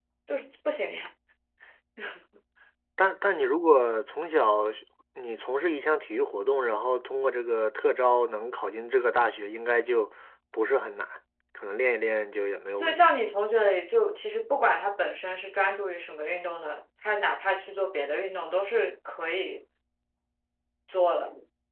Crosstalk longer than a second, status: none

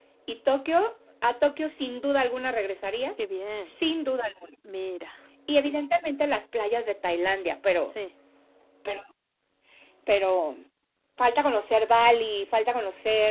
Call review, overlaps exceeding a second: none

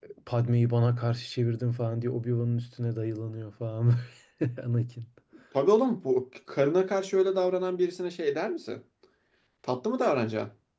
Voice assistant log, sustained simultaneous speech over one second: none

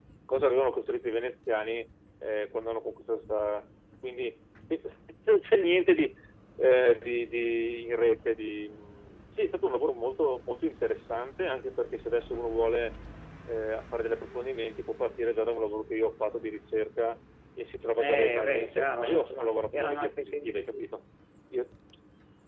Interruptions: present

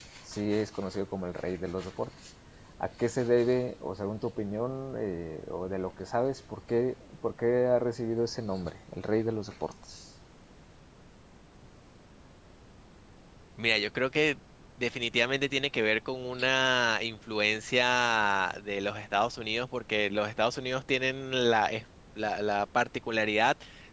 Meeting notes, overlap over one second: none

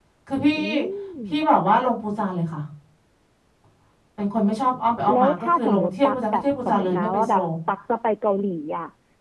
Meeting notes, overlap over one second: present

